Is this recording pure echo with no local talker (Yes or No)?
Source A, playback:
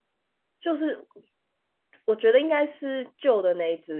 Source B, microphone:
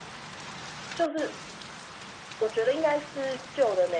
Yes